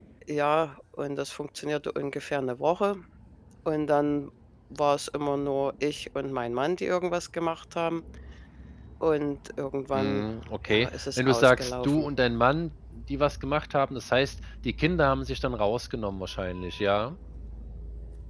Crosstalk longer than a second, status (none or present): present